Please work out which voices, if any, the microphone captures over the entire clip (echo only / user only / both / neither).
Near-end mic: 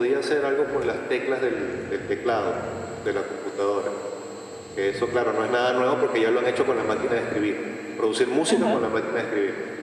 both